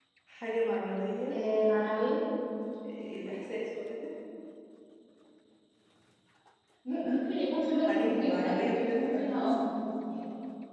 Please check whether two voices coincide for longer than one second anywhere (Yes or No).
Yes